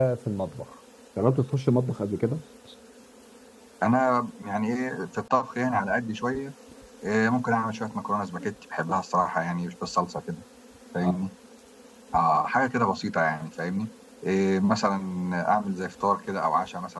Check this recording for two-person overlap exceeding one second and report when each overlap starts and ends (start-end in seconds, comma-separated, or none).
none